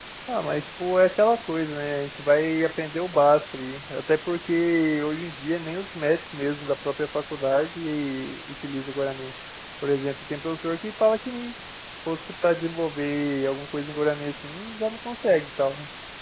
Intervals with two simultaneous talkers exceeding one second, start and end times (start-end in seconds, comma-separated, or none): none